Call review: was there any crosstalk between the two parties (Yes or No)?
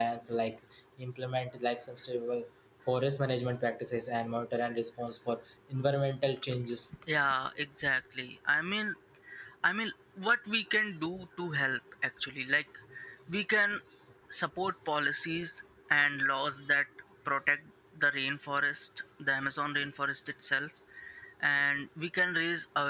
No